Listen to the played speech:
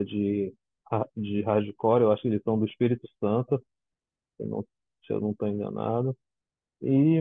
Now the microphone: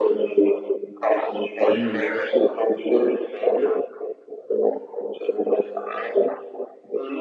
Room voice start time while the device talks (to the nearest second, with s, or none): 2 s